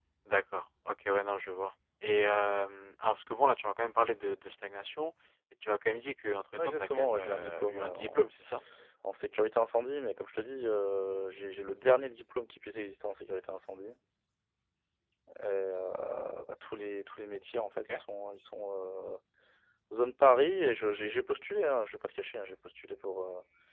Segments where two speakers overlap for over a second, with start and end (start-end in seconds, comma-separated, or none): 6.6-8.3